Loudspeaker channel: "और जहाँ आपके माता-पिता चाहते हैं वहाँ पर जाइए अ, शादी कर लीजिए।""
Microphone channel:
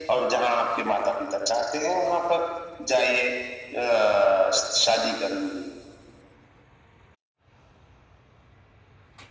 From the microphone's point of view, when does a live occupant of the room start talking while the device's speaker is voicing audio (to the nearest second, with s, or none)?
none